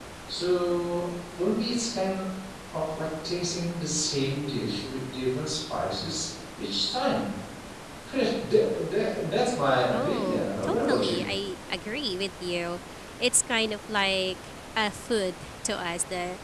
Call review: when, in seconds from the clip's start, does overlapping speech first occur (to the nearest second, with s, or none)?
10 s